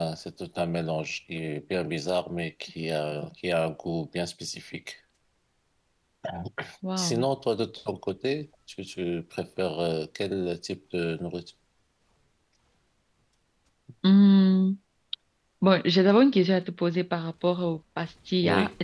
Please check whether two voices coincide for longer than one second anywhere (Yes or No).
No